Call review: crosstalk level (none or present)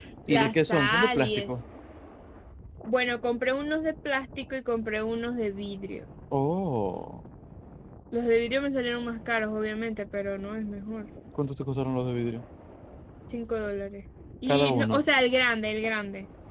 present